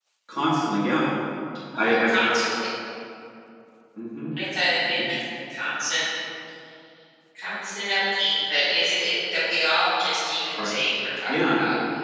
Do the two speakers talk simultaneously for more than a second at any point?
No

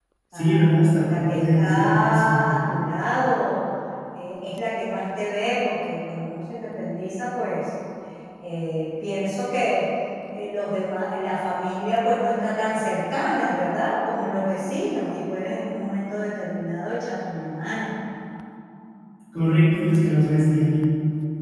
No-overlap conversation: No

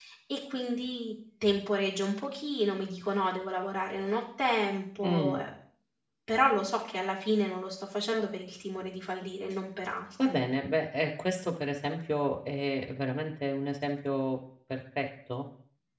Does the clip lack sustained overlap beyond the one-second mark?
Yes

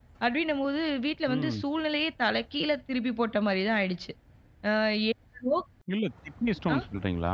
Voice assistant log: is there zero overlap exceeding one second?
Yes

